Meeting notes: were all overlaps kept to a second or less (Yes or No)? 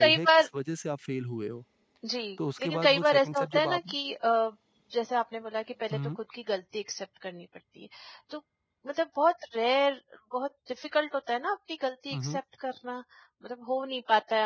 No